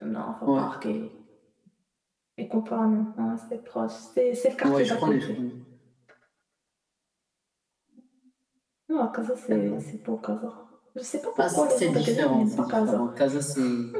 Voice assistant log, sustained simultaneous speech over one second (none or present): present